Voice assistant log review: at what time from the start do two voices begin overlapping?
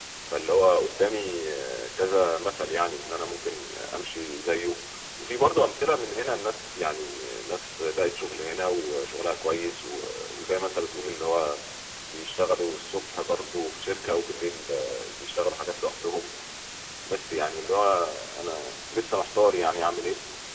none

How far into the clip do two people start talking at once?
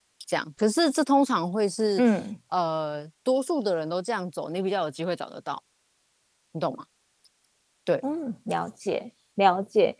none

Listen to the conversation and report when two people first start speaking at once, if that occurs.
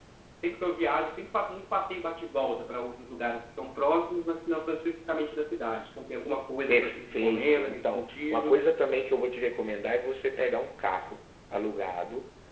6.7 s

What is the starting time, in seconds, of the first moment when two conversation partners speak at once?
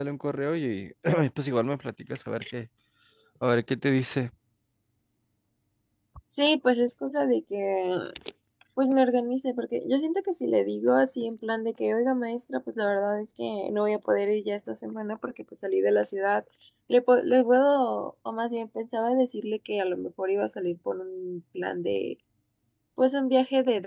none

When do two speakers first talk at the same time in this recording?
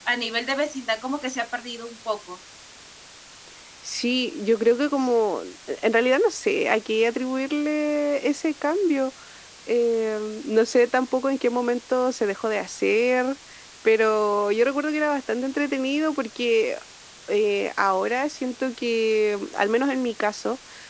none

